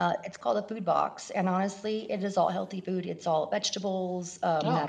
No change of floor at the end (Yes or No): Yes